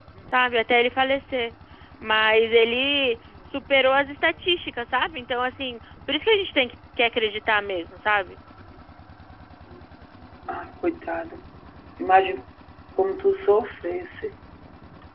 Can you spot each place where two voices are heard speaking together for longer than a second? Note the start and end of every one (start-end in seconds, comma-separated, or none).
none